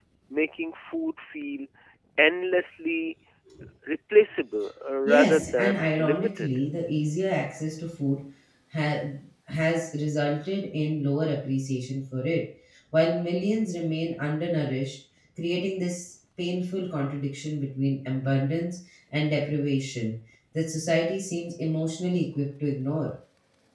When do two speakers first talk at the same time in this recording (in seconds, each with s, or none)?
5.0 s